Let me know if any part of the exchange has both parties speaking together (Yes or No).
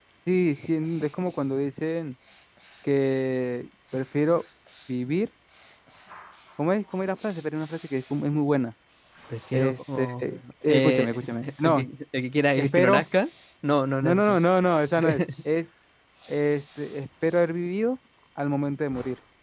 Yes